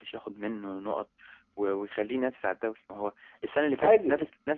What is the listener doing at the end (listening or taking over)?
listening